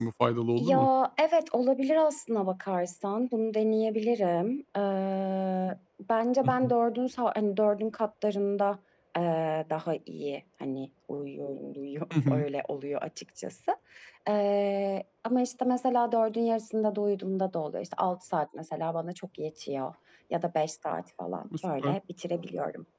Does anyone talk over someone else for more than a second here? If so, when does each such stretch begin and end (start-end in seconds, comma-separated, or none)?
none